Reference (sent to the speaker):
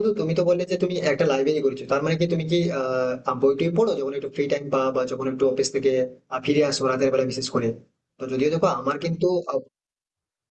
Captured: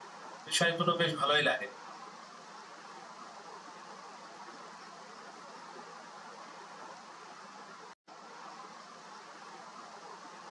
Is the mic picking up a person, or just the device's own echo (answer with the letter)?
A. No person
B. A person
B